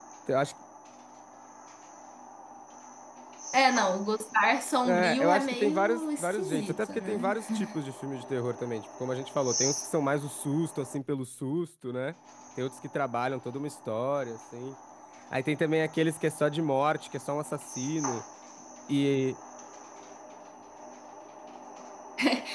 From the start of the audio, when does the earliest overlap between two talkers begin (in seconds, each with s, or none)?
4.8 s